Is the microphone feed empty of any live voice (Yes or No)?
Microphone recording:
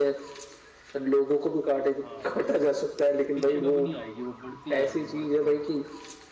No